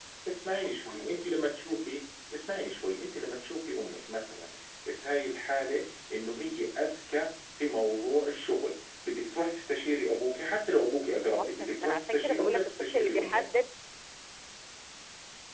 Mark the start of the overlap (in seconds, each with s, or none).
11.3 s